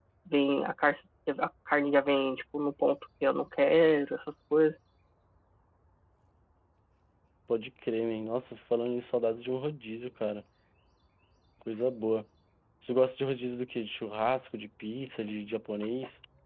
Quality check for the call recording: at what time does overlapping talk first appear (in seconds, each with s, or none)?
none